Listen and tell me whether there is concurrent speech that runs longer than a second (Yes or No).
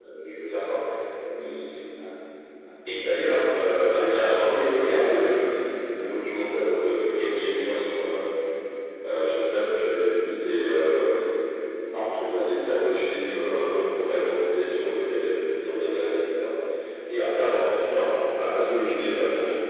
Yes